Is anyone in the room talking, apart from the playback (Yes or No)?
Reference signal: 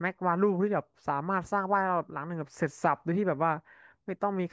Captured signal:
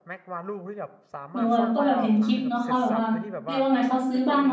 Yes